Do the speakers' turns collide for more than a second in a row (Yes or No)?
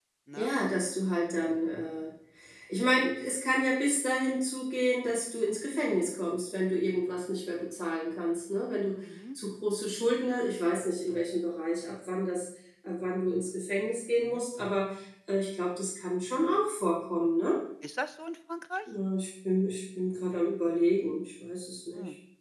No